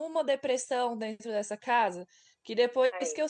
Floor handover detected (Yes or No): No